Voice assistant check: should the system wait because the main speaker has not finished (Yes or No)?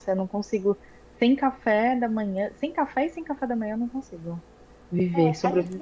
No